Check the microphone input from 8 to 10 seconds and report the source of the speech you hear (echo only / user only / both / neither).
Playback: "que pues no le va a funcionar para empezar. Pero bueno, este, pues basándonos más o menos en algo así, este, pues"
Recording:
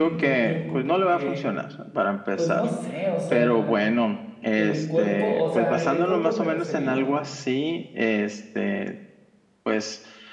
echo only